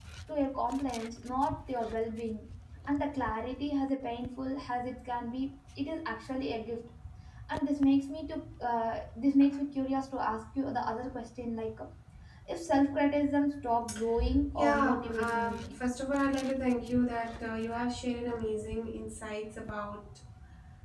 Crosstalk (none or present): present